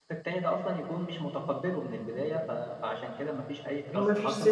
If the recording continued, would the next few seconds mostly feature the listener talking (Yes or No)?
Yes